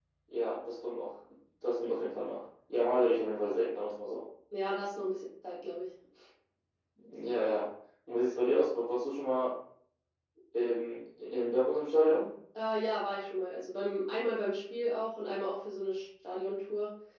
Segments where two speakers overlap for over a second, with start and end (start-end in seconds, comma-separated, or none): none